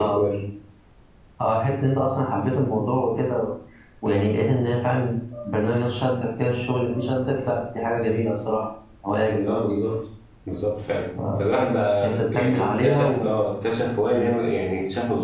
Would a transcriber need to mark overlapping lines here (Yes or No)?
Yes